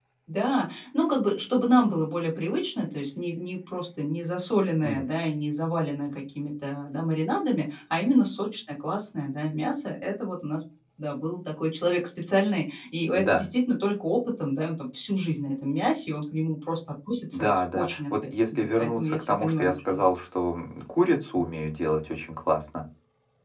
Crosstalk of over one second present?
Yes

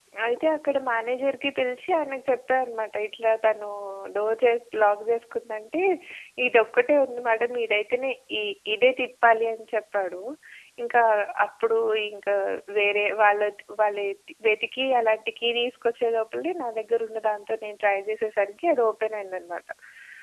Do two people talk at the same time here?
No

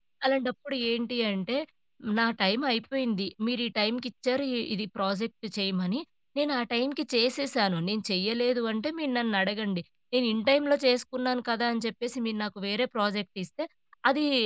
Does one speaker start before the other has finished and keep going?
No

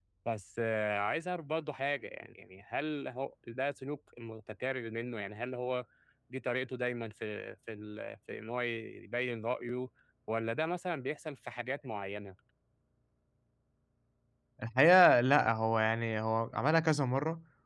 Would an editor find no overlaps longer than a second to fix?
Yes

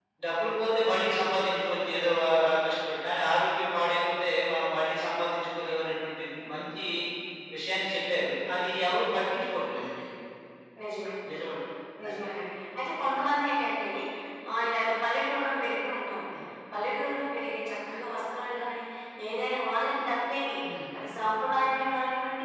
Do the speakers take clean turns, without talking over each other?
Yes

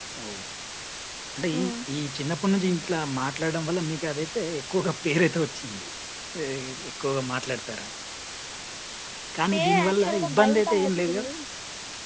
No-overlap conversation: No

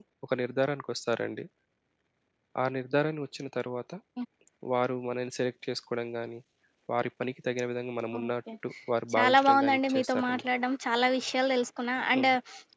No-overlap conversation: No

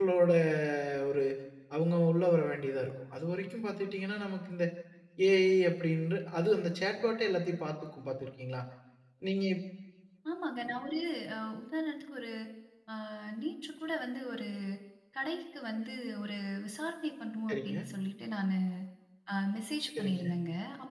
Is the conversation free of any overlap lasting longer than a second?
Yes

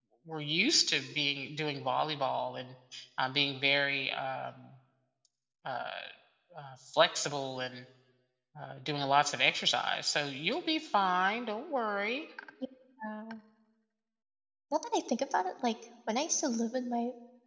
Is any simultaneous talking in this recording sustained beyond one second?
No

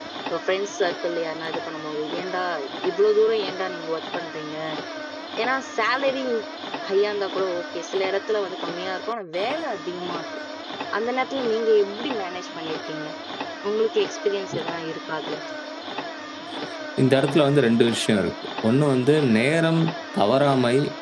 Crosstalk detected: No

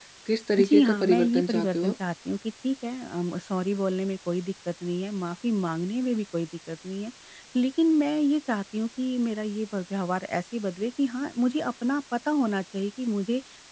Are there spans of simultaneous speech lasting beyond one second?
Yes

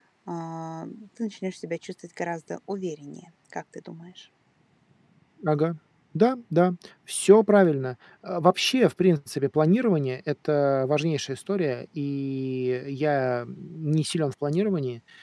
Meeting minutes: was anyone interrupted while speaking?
No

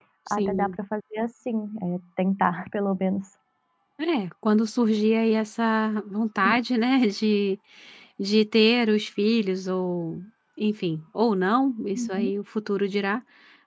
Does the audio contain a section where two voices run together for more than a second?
No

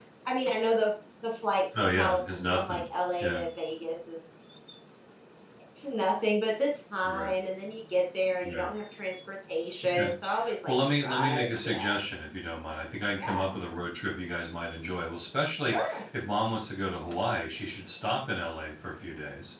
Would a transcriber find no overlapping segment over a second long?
No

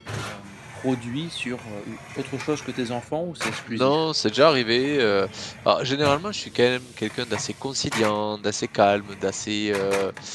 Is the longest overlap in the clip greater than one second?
No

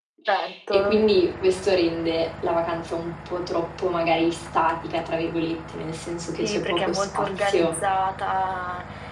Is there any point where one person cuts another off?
Yes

